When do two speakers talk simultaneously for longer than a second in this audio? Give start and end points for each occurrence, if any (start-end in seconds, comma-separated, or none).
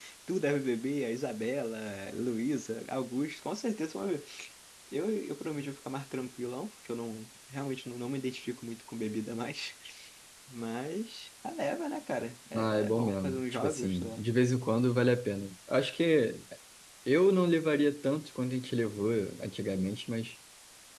12.6-14.2